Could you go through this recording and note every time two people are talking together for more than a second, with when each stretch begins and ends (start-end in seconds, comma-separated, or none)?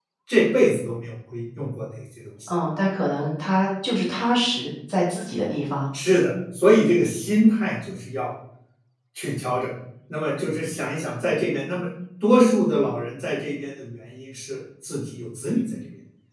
none